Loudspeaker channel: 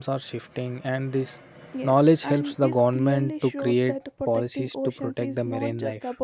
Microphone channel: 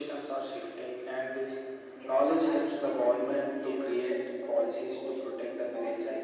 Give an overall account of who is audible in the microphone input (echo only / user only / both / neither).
echo only